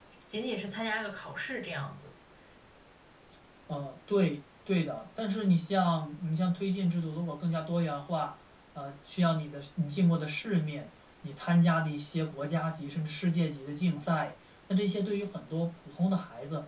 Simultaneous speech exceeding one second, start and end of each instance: none

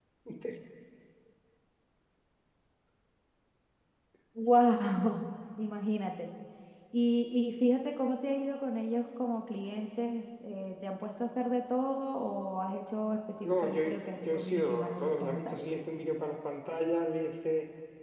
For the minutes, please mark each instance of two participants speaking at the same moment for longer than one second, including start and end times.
13.4-15.6

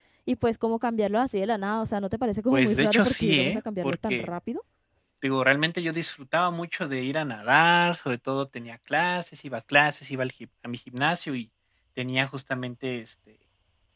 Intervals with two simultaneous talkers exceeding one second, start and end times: 2.5-4.3

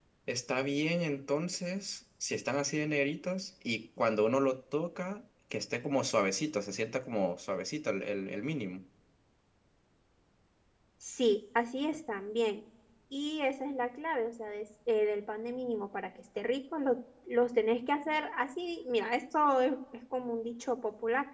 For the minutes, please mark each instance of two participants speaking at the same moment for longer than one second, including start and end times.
none

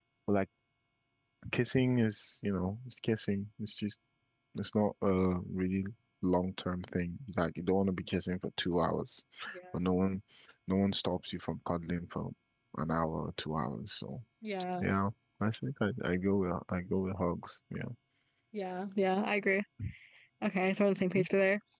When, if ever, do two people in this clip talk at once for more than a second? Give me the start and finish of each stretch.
none

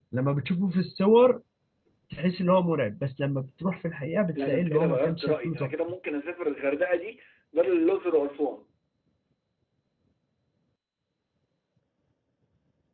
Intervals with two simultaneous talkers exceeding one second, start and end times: 4.3-5.7

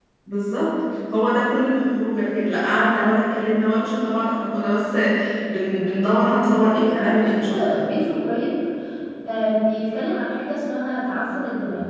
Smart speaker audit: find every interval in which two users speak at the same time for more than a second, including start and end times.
6.4-7.8

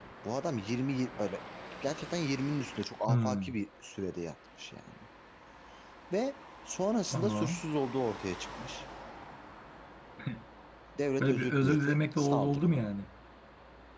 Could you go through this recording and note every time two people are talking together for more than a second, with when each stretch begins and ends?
11.2-12.9

